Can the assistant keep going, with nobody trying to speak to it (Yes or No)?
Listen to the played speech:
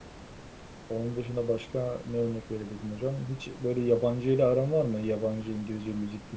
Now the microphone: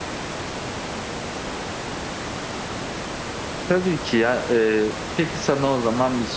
No